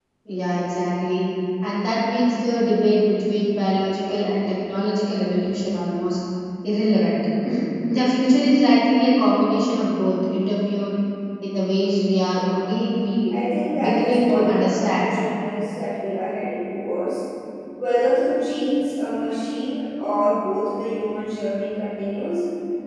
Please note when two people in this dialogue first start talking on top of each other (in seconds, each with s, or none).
13.8 s